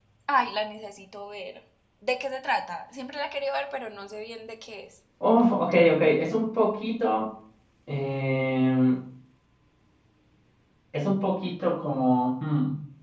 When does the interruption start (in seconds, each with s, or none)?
none